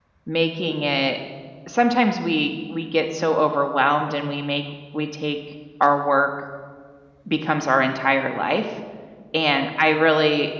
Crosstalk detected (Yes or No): No